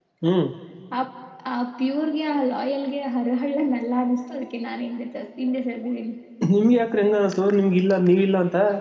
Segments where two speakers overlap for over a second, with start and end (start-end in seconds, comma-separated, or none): none